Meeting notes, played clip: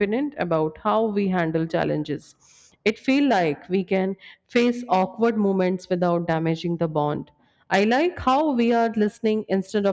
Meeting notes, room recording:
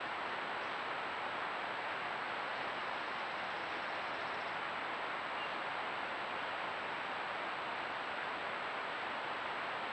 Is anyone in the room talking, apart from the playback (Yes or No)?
No